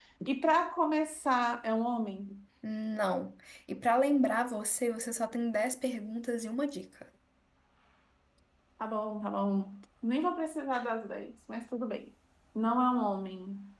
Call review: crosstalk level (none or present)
none